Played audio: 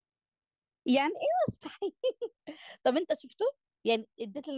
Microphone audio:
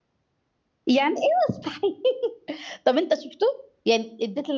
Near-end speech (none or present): none